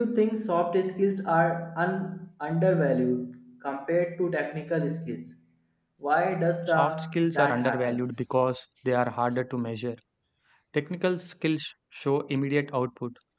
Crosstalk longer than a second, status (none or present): present